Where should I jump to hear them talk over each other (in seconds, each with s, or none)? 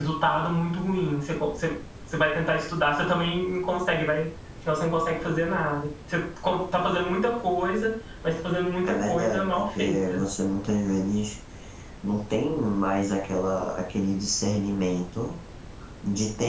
8.8 s